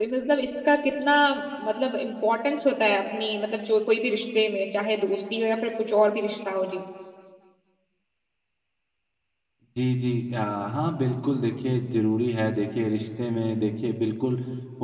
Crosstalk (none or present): none